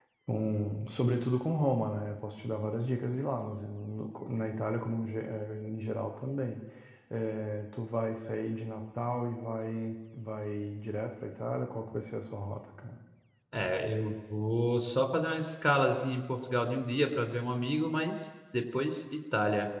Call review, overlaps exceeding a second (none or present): none